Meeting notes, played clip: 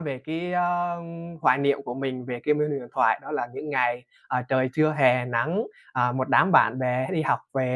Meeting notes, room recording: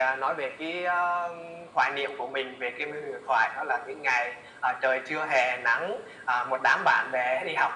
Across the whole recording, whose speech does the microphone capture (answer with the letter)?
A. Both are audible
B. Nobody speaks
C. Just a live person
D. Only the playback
D